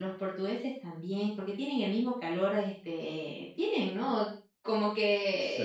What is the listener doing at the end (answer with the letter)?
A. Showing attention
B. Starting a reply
A